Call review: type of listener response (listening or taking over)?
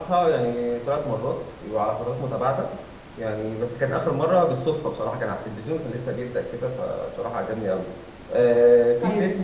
taking over